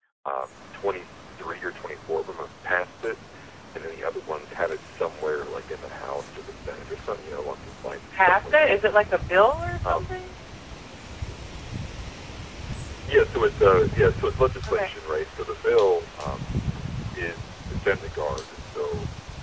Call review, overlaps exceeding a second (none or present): present